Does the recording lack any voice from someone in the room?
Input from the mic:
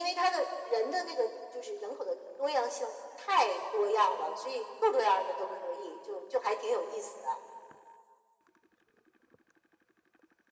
Yes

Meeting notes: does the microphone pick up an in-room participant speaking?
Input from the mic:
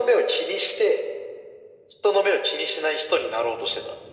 No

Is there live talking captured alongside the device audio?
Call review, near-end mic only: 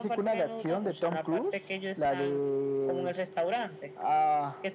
No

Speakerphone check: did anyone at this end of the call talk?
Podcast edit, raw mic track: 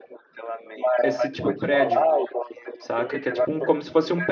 Yes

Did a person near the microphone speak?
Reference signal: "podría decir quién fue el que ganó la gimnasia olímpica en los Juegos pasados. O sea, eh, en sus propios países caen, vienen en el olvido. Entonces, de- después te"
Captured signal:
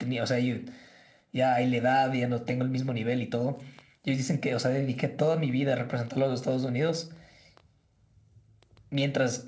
Yes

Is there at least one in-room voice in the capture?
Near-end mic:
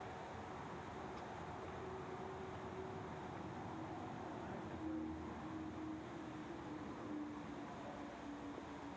No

